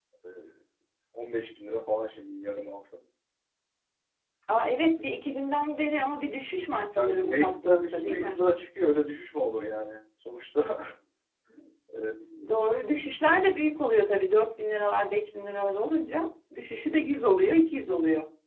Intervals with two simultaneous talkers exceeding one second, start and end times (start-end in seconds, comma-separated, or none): 7.0-8.4